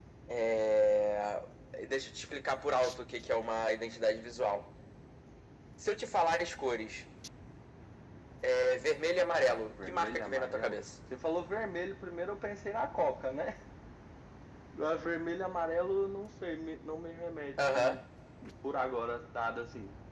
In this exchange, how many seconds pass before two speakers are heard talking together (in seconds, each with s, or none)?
9.3 s